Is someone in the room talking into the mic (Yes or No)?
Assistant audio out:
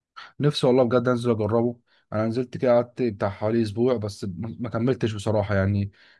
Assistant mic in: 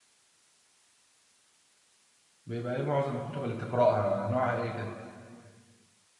Yes